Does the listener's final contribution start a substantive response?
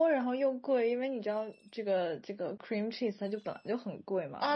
Yes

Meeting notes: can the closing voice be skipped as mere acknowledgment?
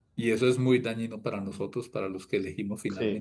No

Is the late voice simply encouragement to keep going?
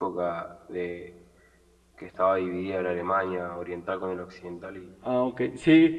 No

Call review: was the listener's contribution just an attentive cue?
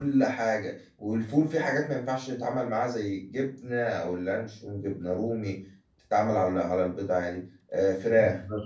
Yes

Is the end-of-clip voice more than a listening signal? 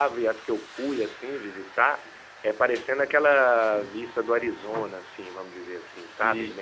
No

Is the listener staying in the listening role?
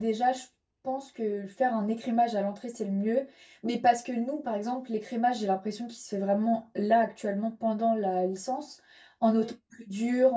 Yes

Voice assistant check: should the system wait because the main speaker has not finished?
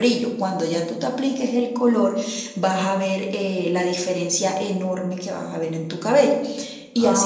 No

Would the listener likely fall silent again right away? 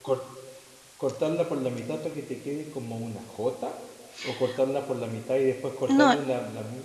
Yes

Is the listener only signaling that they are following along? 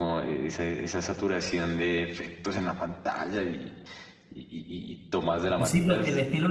No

